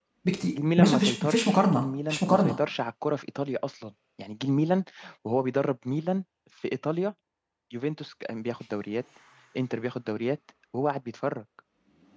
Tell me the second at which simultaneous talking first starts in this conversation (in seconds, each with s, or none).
0.8 s